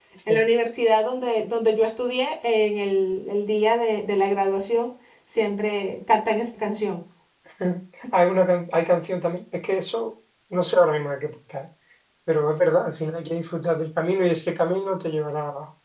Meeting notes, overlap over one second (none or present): none